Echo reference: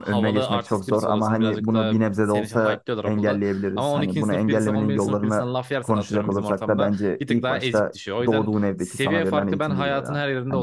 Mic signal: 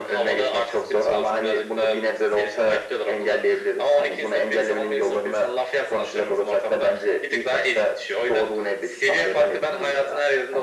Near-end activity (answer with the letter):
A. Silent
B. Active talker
A